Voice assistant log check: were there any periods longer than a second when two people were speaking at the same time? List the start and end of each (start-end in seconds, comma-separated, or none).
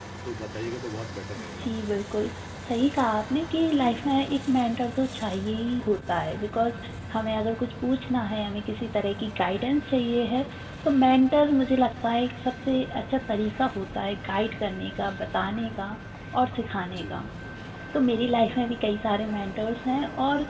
none